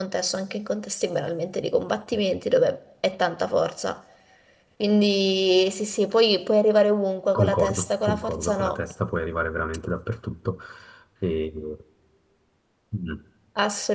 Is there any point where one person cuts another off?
Yes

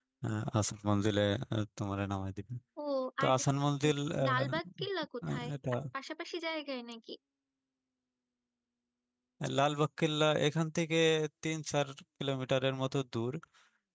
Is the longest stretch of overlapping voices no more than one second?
Yes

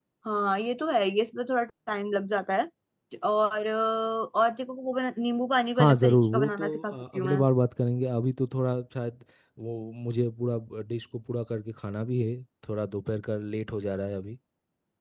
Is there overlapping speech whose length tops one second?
Yes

